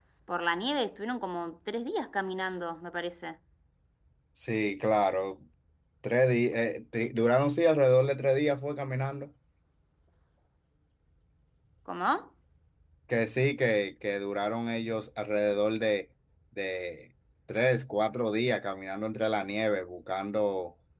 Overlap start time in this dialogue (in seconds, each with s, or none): none